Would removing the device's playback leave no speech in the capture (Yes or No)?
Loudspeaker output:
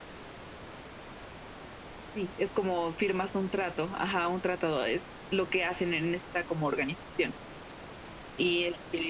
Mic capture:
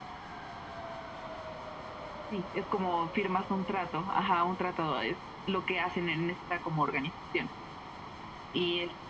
Yes